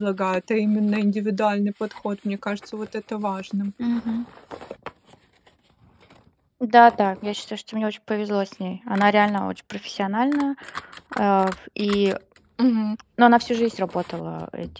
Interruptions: none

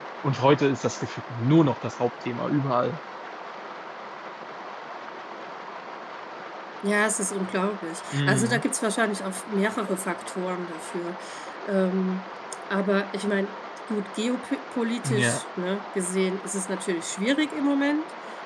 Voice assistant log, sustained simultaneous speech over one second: none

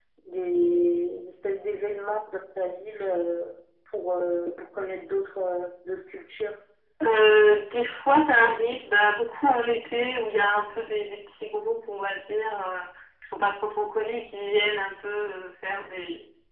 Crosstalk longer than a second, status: none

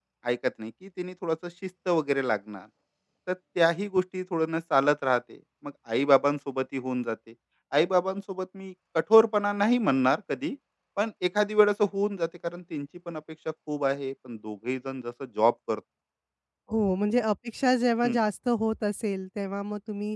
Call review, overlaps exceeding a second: none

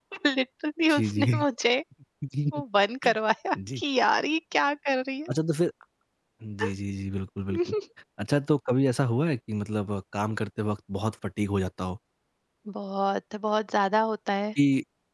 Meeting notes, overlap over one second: none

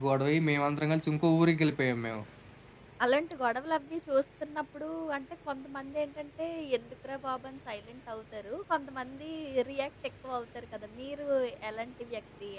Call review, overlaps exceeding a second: none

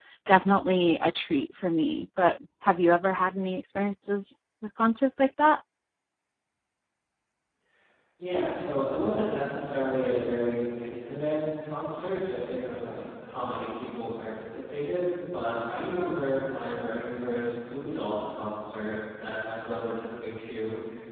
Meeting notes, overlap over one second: none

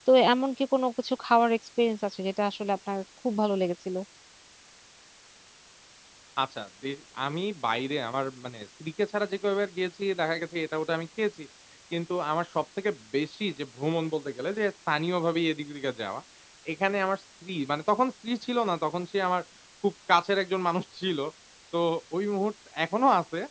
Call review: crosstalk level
none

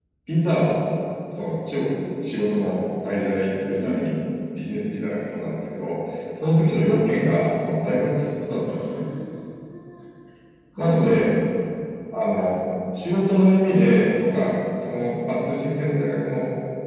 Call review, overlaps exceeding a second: none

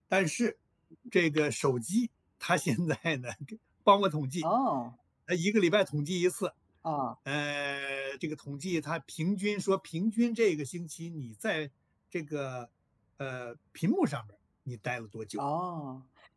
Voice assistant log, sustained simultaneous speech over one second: none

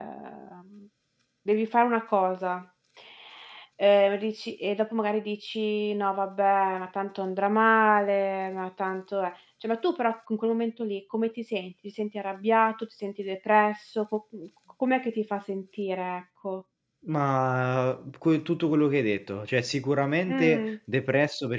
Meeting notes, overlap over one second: none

